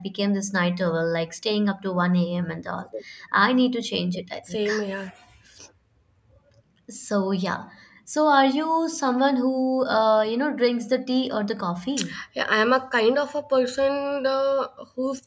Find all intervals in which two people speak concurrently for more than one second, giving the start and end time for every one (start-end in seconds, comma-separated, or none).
none